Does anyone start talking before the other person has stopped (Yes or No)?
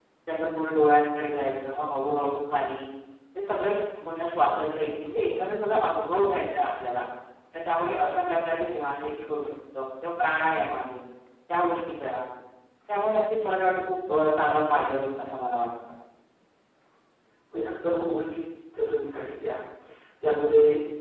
No